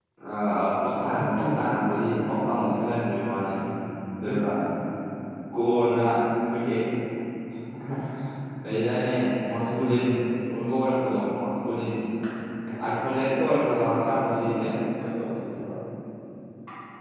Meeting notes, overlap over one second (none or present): present